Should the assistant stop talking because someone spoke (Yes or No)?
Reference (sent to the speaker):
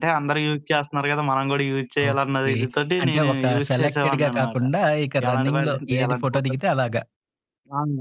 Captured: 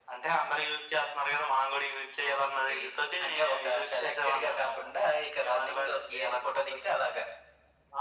No